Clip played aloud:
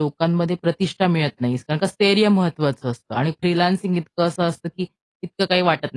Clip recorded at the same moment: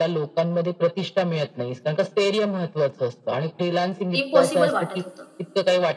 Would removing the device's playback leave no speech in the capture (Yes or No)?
No